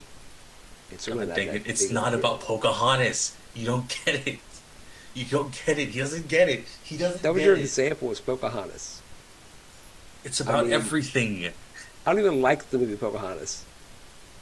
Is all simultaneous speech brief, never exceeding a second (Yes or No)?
No